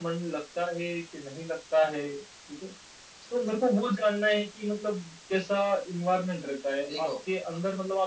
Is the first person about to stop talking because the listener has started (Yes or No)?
No